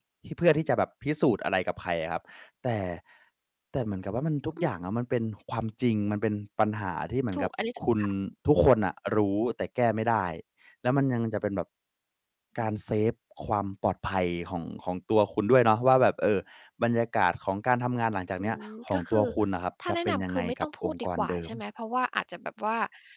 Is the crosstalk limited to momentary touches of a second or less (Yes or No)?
No